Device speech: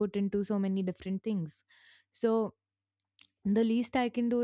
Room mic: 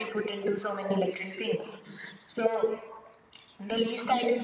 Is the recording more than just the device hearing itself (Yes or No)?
No